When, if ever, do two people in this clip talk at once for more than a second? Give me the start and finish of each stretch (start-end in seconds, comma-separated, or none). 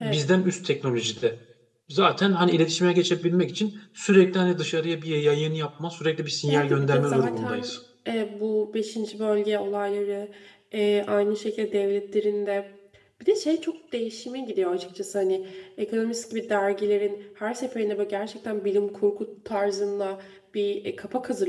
6.5-7.8